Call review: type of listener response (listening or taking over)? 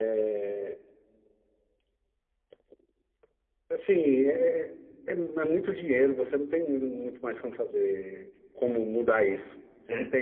listening